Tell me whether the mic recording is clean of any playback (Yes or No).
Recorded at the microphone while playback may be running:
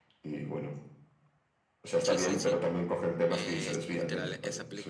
No